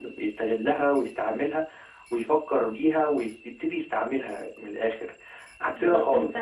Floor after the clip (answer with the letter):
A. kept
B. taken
B